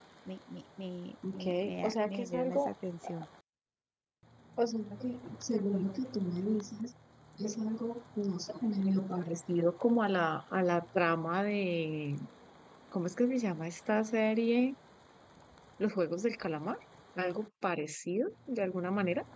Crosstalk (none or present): present